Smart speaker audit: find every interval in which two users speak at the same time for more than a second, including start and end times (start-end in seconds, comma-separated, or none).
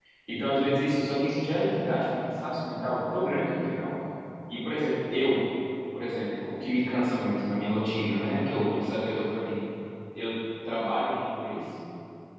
none